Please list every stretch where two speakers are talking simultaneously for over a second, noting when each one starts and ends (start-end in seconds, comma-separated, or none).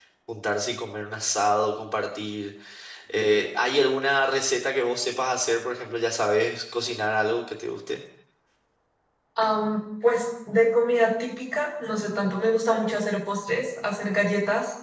none